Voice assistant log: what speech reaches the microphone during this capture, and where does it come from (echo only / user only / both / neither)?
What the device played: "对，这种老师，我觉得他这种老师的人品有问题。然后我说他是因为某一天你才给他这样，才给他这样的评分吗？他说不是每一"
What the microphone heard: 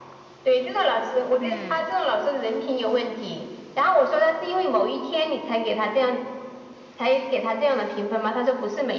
both